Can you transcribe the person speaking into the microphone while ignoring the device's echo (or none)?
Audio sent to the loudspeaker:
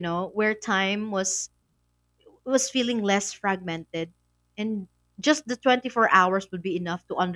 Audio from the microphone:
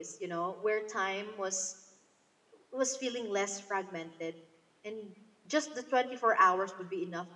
none